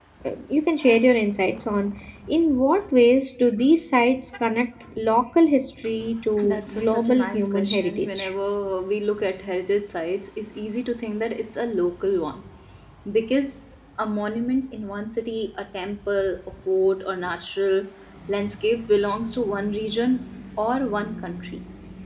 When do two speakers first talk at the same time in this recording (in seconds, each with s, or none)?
6.4 s